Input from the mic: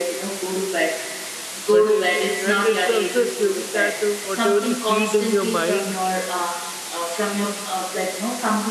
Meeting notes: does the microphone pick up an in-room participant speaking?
Yes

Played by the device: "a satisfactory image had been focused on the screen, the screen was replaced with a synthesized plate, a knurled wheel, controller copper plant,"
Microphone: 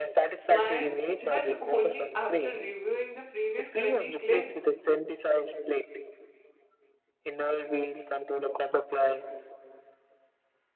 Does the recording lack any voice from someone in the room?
No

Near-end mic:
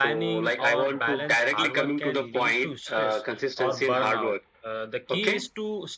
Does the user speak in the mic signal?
Yes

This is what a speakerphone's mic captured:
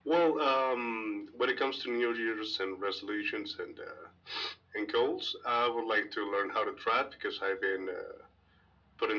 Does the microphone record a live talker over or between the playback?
No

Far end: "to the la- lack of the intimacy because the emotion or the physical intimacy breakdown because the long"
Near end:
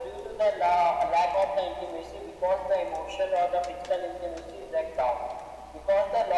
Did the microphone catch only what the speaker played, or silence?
Yes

